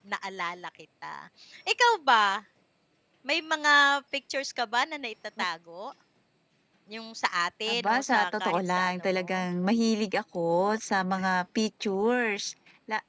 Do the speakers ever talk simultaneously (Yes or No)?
Yes